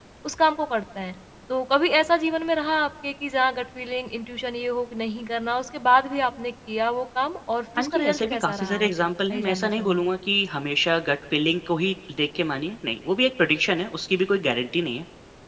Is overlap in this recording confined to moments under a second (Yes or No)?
No